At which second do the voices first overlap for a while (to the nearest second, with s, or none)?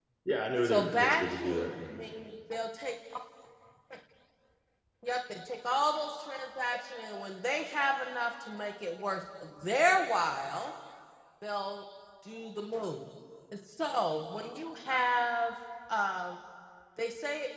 1 s